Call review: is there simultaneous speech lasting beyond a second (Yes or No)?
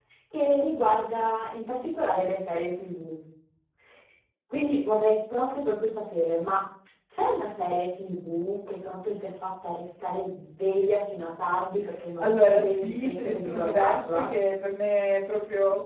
Yes